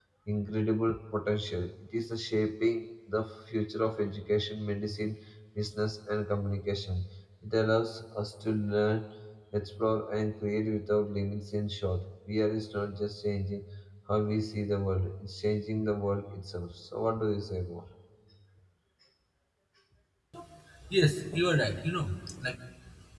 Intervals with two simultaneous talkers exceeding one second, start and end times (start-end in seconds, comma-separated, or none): none